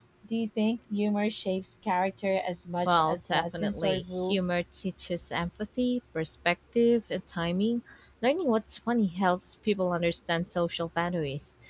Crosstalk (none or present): present